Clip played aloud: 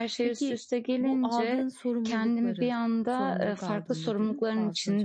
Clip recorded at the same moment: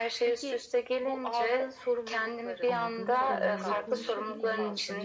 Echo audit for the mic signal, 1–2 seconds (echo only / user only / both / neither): echo only